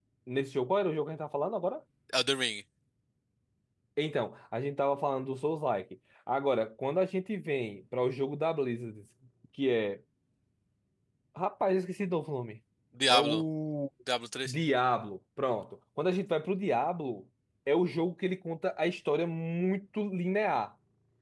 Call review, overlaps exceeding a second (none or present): none